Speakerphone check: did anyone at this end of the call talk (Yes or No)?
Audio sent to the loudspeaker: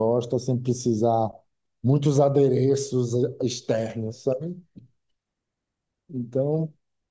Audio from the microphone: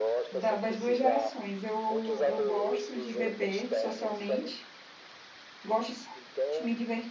Yes